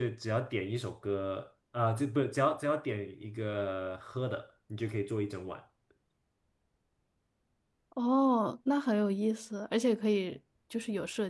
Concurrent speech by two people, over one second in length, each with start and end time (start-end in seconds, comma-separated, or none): none